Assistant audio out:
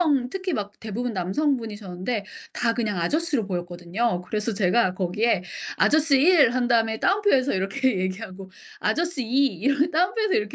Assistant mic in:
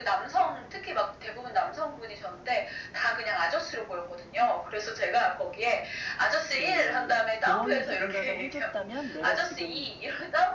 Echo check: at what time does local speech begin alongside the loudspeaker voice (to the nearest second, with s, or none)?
6 s